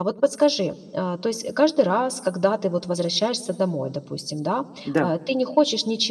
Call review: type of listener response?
listening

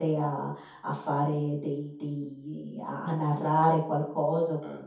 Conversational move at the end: listening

